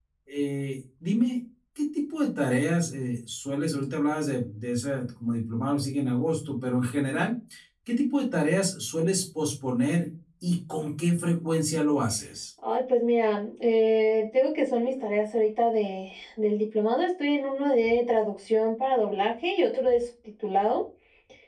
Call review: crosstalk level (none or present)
none